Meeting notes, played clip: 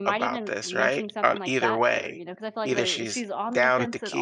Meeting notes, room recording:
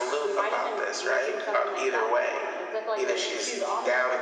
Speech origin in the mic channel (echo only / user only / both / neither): echo only